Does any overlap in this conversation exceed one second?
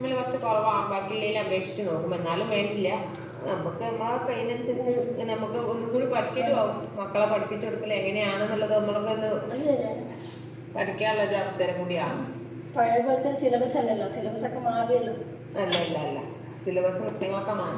No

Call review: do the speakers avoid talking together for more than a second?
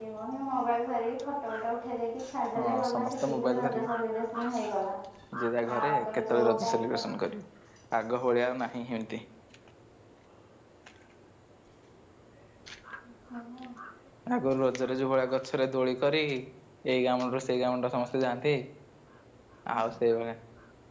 No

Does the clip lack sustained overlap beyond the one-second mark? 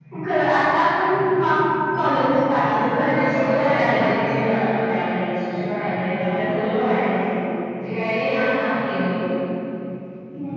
No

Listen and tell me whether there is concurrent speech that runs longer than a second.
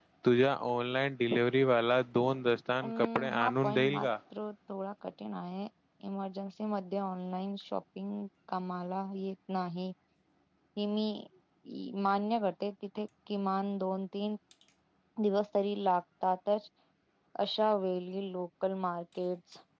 Yes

